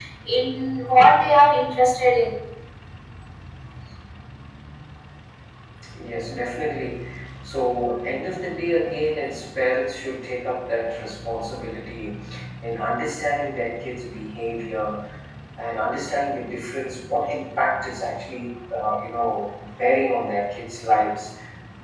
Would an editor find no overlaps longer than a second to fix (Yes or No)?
Yes